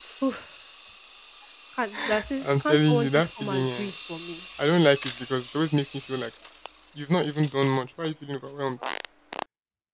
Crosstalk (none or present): present